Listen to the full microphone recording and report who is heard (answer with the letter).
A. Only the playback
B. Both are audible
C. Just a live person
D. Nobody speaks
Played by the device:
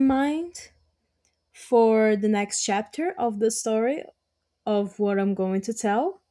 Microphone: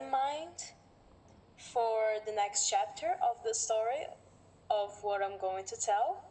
A